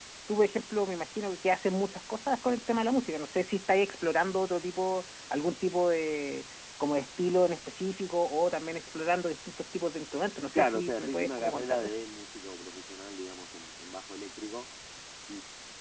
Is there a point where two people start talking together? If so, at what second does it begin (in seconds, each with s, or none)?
10.6 s